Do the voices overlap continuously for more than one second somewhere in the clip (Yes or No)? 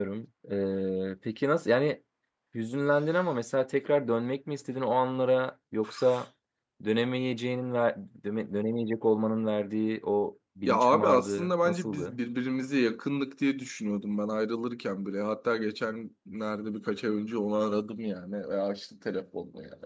Yes